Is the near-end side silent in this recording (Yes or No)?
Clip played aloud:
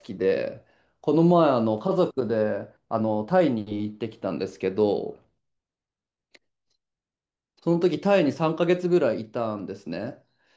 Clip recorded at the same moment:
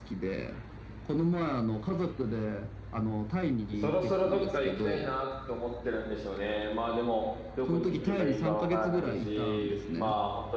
No